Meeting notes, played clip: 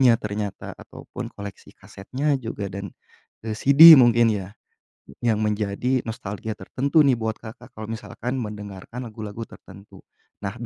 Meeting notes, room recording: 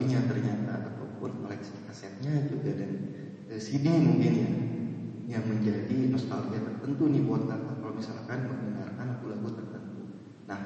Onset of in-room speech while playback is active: none

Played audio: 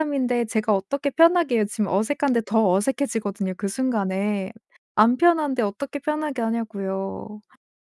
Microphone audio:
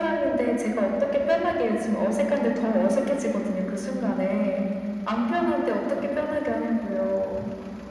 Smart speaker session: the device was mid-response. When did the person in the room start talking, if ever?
none

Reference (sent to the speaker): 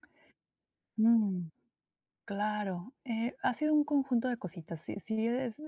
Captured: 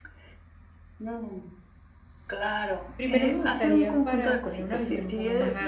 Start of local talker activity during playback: 3 s

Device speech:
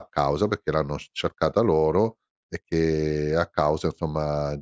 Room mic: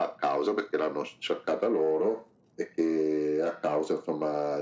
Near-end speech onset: none

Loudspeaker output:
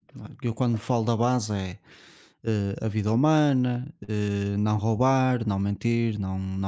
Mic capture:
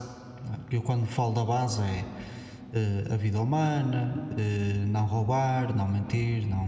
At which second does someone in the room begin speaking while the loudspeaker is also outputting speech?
none

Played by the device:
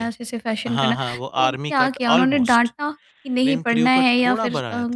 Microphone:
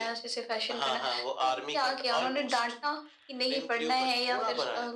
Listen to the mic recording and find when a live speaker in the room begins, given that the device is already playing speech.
none

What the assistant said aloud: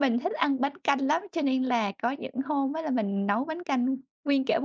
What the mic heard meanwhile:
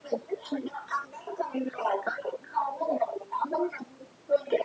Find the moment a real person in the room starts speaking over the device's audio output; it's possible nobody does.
none

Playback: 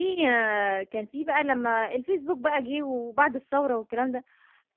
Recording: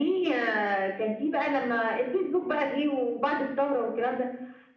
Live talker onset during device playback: none

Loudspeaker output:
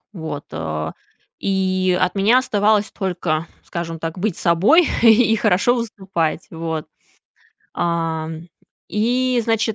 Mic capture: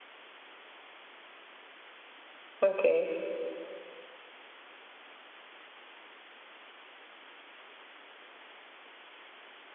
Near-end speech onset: 3 s

